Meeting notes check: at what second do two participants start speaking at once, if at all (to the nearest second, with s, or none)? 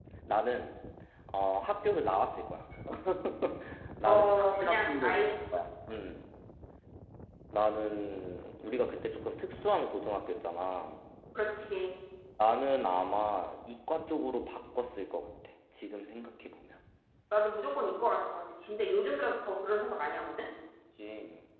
4 s